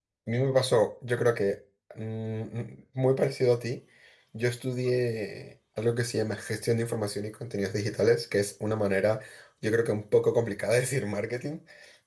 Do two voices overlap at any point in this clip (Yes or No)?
No